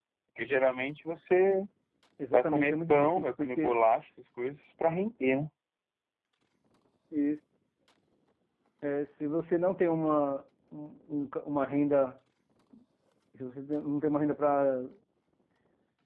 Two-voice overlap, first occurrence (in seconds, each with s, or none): 2.3 s